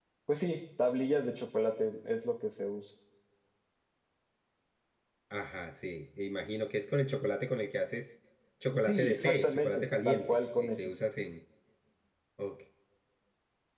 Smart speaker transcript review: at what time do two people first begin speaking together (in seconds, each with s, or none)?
8.8 s